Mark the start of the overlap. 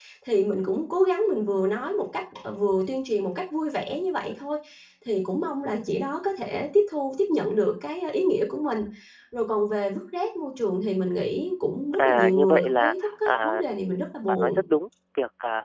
12 s

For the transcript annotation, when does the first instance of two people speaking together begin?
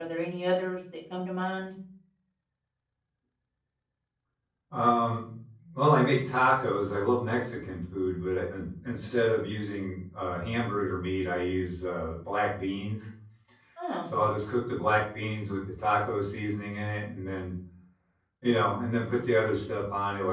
none

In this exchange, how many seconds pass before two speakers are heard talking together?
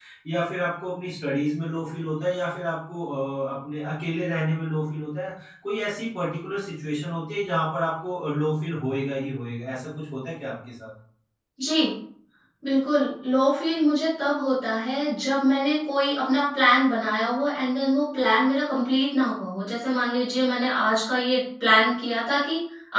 none

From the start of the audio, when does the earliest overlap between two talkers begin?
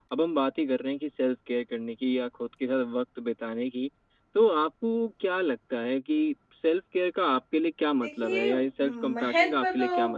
8 s

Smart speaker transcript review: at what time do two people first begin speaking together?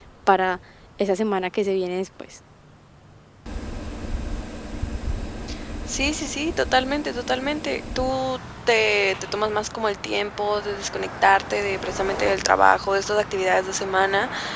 none

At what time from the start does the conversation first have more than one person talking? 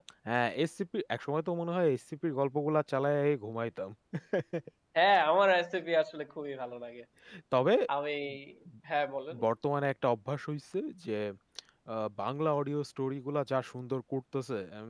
none

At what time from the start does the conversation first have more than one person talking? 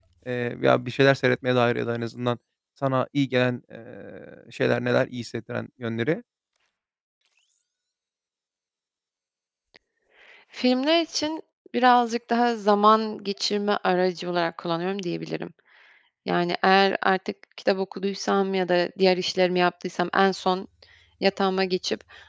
none

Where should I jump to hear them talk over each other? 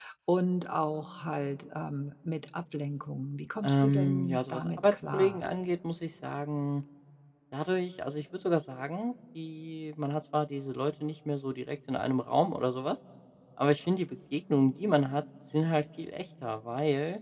4 s

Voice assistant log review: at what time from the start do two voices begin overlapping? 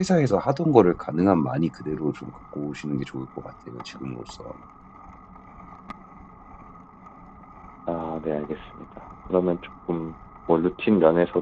none

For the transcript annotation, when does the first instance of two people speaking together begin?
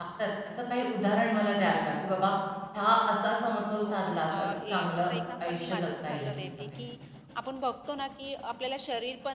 4 s

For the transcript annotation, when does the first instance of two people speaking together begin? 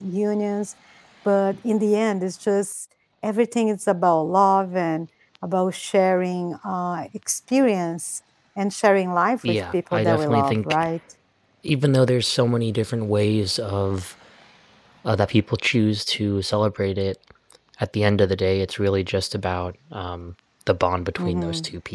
9 s

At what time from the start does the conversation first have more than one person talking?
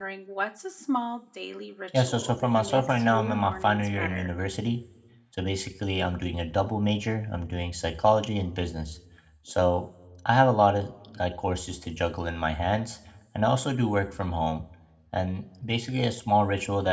2 s

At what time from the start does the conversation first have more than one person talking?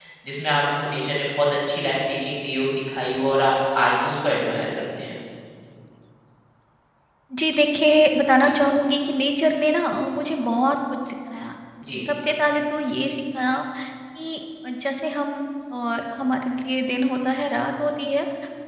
none

